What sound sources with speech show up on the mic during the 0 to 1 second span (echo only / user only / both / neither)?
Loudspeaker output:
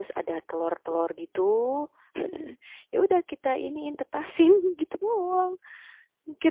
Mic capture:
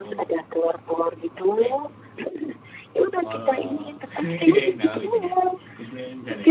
both